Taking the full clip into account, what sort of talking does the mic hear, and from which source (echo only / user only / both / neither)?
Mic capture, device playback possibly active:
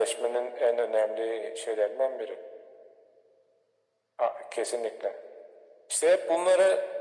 echo only